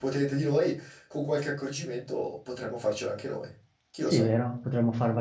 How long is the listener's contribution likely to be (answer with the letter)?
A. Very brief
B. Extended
B